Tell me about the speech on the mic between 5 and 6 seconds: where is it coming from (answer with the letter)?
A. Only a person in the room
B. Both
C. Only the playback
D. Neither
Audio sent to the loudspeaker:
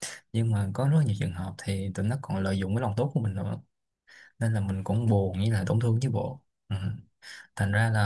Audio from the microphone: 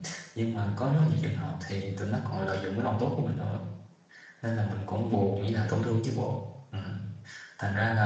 C